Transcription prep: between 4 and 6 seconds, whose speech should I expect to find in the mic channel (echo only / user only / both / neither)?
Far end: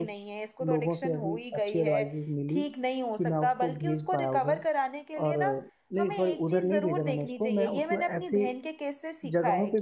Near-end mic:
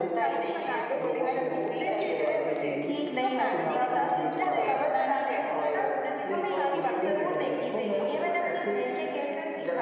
both